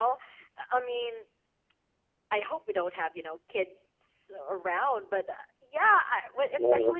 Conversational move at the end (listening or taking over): listening